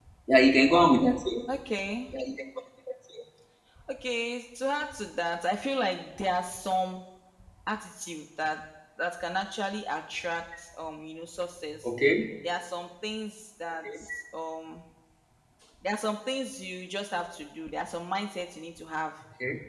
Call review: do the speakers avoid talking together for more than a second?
Yes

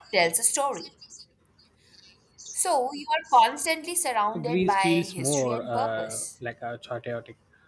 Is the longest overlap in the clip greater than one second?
Yes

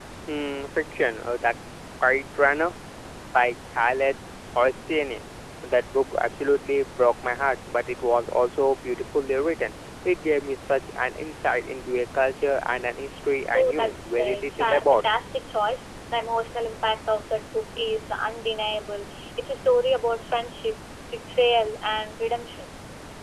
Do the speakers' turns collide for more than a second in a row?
Yes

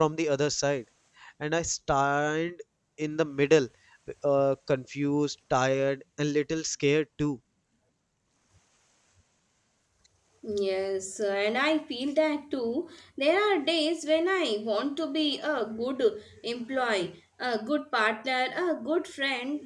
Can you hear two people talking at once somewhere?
No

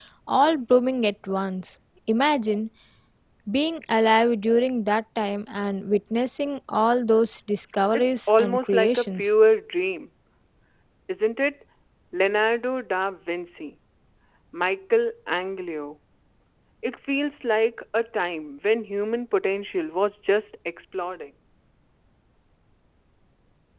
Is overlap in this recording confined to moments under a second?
No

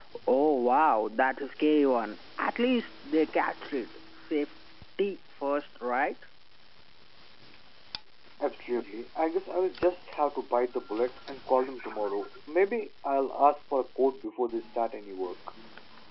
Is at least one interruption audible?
No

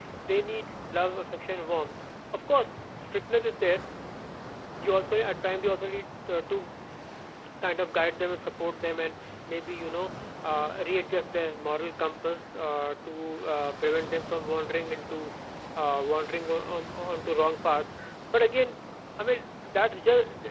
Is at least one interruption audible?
No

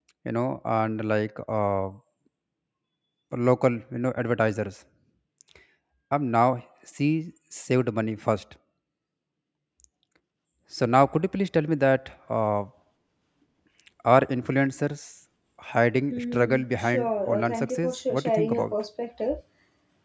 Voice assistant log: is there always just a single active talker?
No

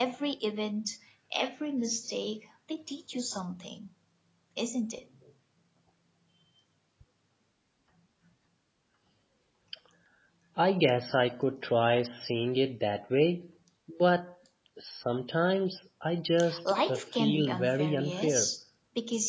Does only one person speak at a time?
No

